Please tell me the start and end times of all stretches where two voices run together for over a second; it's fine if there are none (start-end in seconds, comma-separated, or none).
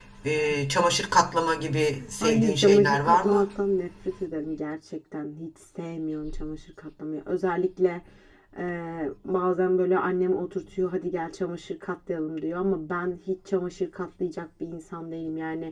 2.2-3.5